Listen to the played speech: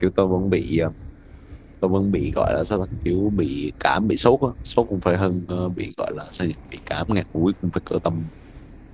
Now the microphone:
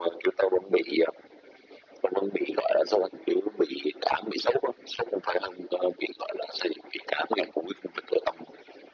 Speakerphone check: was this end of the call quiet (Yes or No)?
Yes